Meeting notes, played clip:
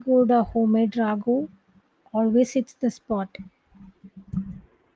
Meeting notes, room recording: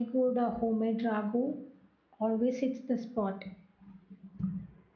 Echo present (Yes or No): Yes